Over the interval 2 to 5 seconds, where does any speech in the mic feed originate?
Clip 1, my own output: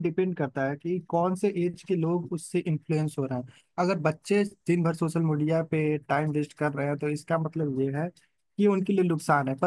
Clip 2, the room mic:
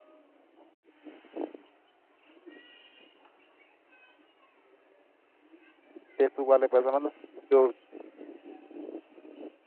neither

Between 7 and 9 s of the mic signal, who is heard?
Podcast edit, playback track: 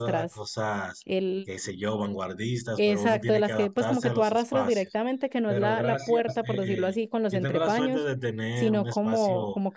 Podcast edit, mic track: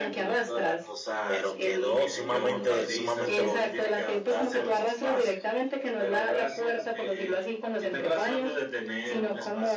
echo only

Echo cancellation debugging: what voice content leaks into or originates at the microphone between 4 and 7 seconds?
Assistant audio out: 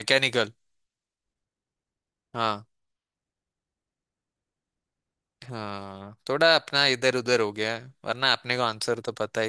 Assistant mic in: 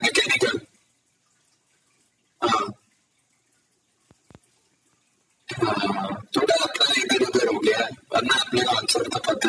echo only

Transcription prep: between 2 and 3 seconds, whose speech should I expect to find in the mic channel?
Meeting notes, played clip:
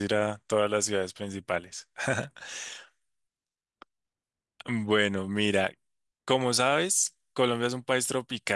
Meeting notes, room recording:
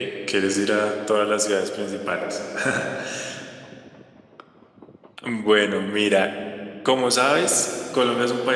echo only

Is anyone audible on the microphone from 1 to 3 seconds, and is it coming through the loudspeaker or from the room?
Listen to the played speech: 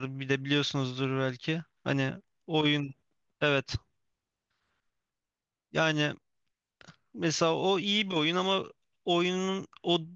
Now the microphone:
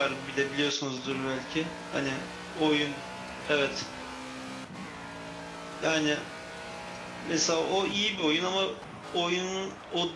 echo only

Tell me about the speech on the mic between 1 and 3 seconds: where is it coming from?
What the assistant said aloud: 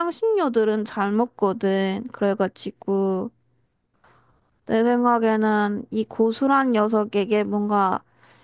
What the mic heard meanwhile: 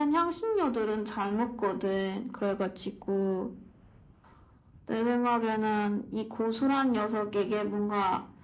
echo only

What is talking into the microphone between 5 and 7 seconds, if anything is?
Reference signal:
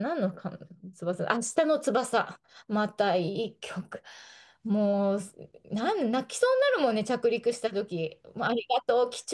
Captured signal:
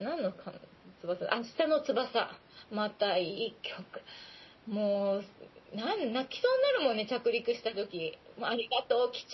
echo only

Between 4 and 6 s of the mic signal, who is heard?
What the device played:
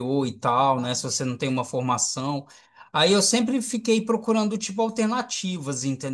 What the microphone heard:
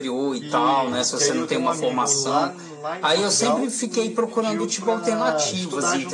both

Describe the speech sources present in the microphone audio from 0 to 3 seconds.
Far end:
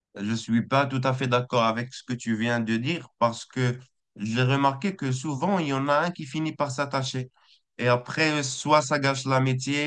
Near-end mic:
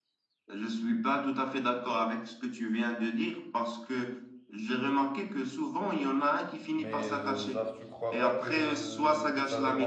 echo only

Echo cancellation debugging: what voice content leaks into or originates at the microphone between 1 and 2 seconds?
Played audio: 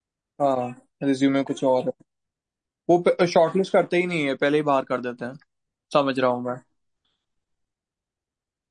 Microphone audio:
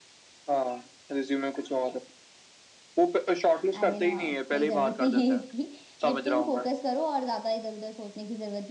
echo only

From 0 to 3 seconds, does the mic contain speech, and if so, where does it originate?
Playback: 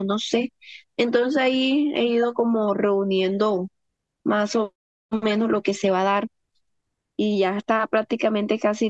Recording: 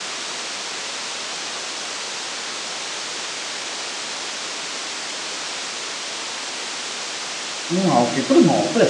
neither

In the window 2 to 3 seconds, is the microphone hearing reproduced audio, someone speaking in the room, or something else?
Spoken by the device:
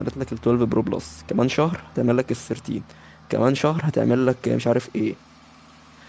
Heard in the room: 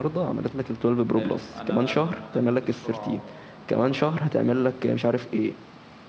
both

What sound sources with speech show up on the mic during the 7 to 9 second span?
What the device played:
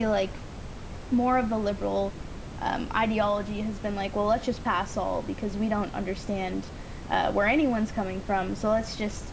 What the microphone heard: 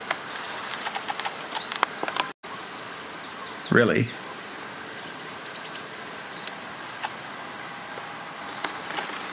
neither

